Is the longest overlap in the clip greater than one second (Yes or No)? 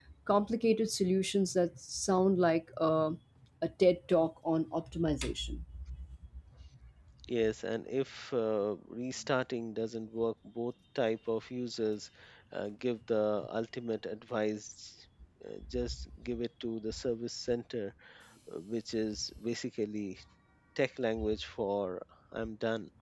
No